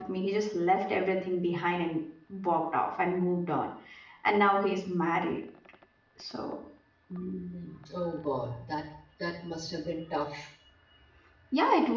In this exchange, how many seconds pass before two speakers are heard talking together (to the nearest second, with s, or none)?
none